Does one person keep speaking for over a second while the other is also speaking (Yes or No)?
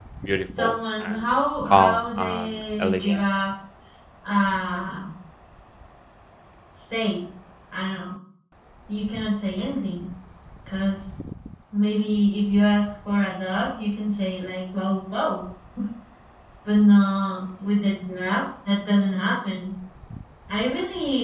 Yes